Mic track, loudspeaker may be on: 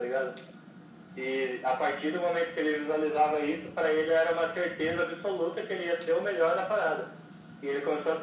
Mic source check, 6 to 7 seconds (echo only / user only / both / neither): echo only